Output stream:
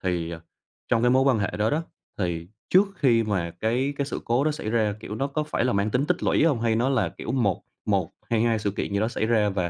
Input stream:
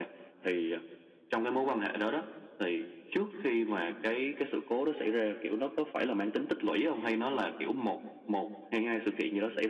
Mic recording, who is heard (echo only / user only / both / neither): echo only